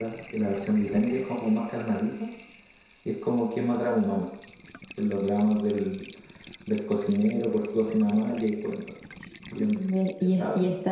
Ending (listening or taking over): taking over